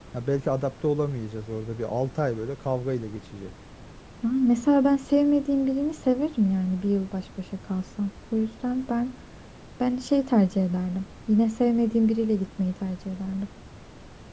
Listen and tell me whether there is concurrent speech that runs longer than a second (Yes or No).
No